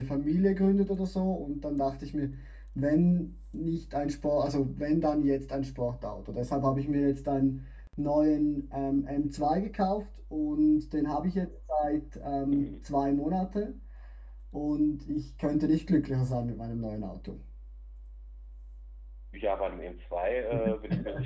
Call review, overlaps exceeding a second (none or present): none